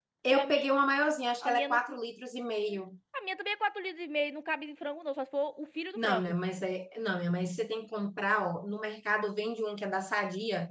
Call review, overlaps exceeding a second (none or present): none